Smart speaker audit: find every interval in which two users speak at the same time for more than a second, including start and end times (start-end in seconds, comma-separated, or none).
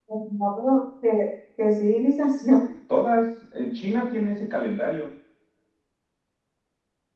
none